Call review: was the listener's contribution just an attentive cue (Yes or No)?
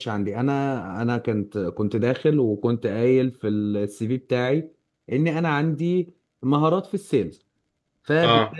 Yes